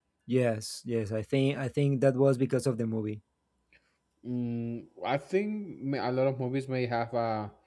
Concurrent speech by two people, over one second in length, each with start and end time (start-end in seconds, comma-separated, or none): none